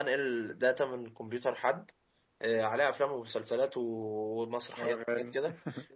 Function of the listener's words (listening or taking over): listening